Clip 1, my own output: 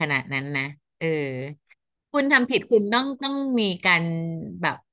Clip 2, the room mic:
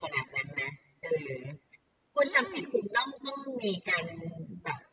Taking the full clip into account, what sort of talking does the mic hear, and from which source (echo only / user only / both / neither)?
both